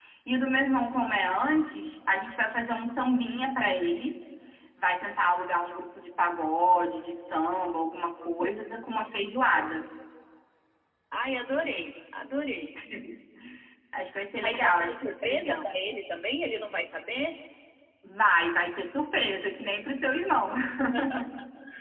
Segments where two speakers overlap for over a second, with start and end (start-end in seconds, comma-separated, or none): 14.4-15.7